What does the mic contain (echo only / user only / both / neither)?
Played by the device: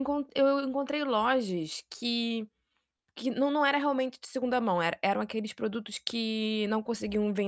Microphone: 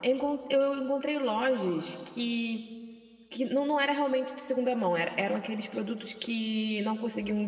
echo only